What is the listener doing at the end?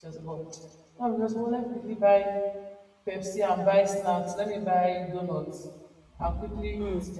listening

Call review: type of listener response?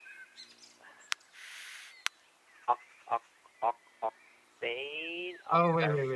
taking over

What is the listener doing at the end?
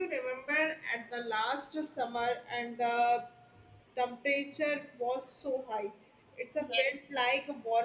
listening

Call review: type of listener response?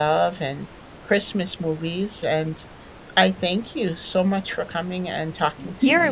taking over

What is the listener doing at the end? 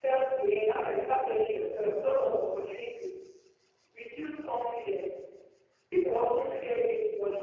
listening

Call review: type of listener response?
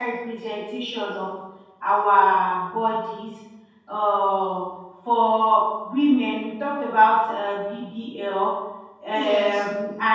listening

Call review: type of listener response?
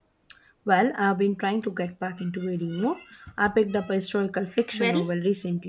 listening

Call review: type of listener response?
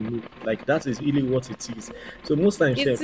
listening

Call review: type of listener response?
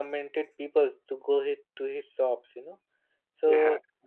listening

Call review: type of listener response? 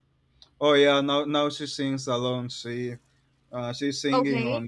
listening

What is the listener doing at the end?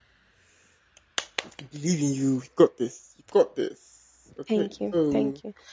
taking over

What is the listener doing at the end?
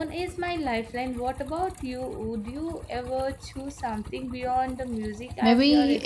taking over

